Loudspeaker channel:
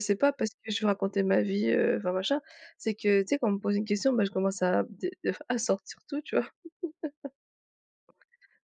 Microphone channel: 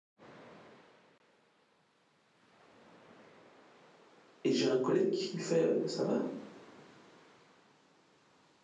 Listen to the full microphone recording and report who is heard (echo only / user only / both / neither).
user only